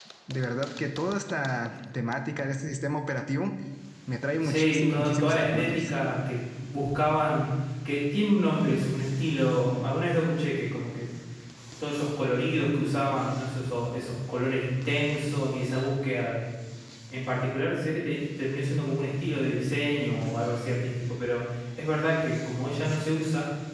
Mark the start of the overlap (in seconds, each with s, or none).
4.4 s